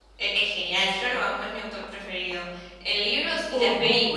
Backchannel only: Yes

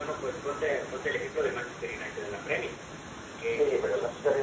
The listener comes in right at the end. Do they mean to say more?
Yes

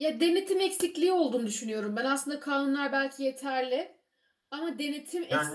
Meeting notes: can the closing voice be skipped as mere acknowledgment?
Yes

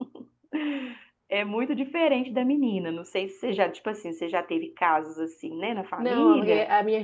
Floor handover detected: Yes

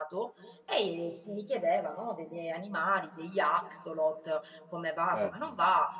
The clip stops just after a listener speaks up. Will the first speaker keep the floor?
Yes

